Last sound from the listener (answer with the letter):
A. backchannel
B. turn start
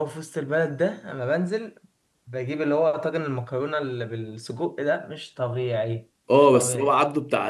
B